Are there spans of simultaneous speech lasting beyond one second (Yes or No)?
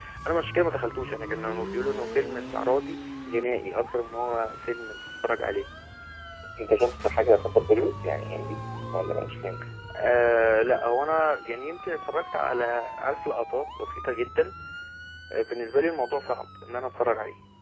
No